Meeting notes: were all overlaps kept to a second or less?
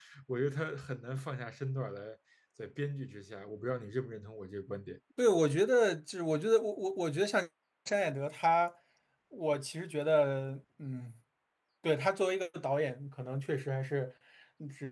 Yes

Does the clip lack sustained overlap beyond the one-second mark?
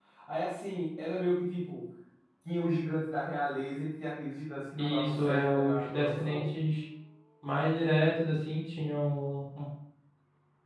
No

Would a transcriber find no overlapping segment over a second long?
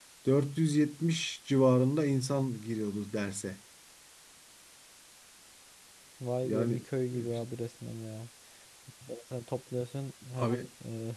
Yes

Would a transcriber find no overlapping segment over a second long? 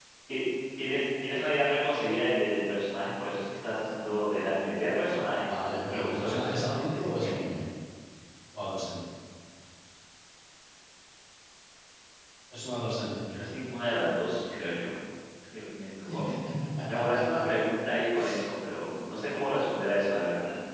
No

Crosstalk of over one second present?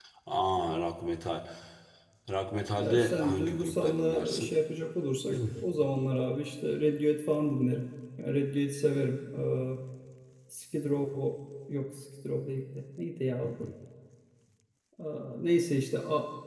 Yes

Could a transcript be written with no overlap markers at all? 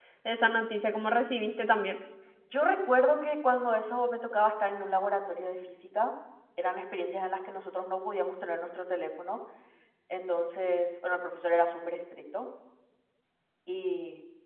Yes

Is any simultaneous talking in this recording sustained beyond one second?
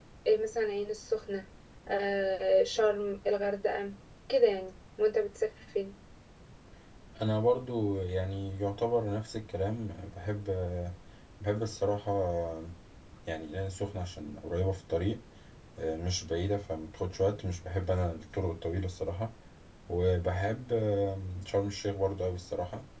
No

